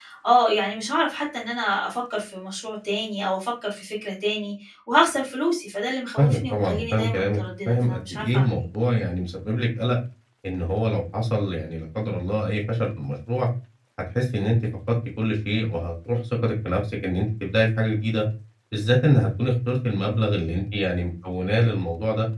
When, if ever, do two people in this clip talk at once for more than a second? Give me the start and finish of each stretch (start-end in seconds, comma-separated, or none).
6.2-8.6